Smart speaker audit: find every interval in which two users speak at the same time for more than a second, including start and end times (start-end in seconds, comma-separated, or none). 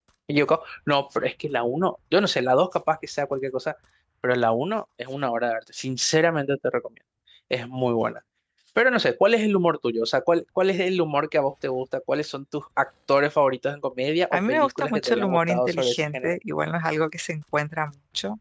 14.3-16.4